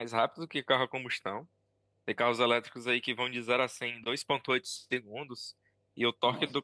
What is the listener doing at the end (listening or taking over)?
listening